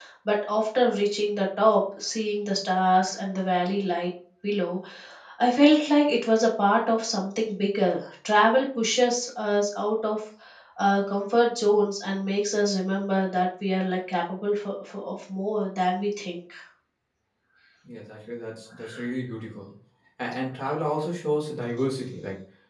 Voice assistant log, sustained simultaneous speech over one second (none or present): none